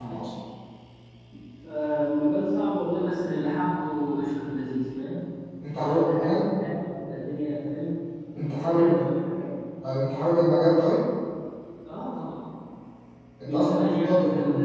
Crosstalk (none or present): present